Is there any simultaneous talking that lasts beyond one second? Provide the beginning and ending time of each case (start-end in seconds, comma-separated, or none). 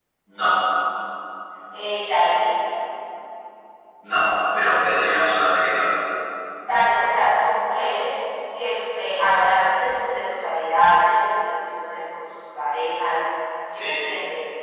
none